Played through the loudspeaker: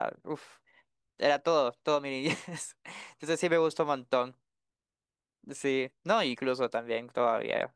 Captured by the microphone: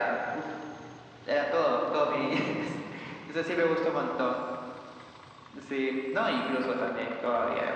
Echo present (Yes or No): Yes